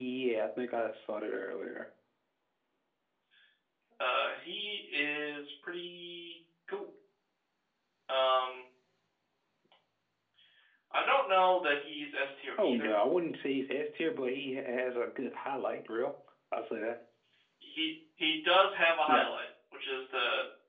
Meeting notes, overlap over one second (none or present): none